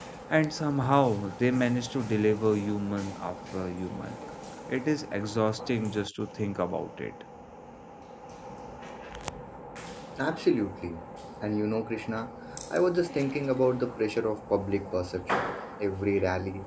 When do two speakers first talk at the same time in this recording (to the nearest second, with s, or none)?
none